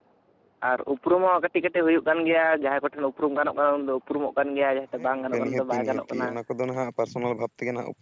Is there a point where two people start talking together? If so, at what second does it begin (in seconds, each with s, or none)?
5.0 s